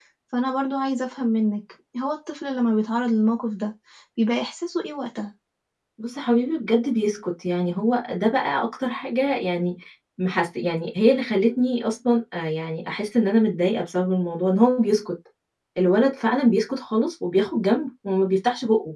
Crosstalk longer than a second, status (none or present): none